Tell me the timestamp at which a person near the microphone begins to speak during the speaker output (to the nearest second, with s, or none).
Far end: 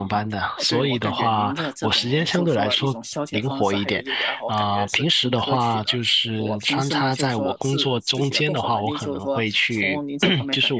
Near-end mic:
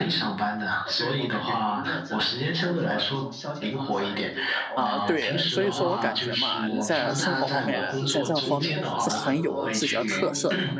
5 s